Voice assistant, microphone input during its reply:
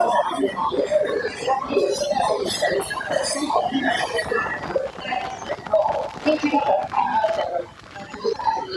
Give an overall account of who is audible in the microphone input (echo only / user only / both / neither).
echo only